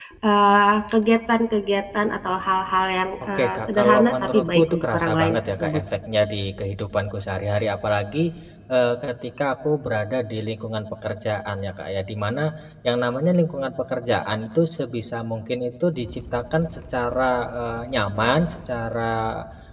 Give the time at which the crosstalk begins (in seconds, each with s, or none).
3.4 s